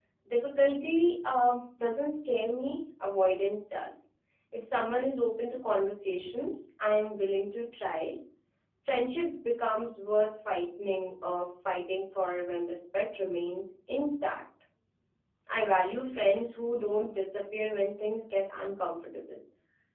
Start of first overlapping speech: none

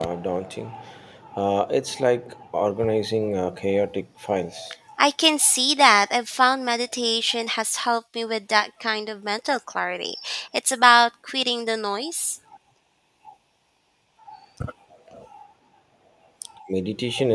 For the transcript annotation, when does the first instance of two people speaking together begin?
none

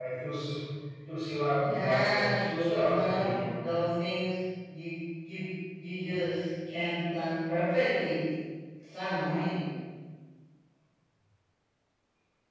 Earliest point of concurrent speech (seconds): 1.6 s

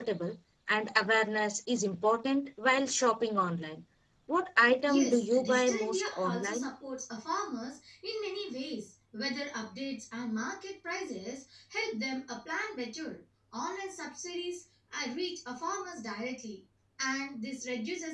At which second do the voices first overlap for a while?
4.8 s

